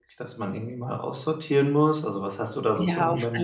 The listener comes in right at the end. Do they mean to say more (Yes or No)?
Yes